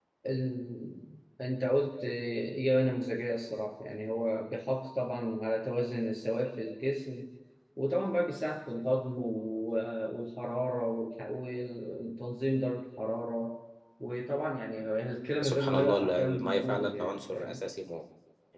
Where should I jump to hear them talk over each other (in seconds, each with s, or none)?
15.4 s